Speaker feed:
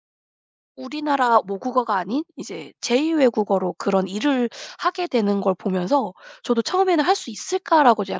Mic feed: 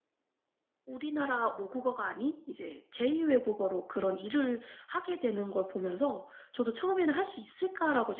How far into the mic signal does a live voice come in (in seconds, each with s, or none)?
none